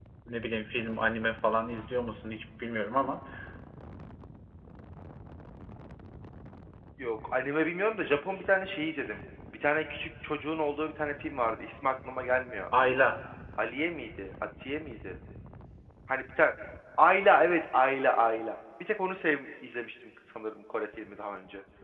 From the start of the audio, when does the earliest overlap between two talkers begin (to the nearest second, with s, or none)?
none